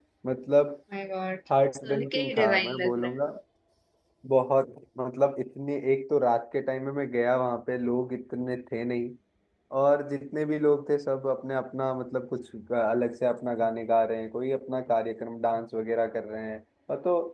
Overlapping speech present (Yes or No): Yes